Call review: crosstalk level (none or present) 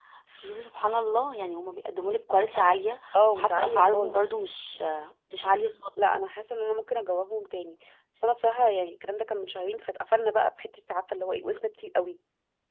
present